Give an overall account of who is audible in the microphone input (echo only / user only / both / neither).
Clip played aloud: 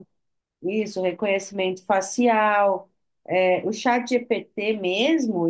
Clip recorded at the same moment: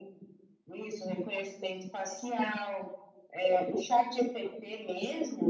echo only